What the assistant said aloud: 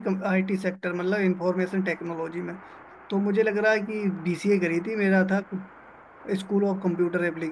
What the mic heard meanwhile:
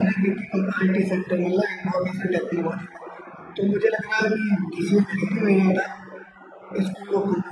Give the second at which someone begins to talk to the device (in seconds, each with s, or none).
none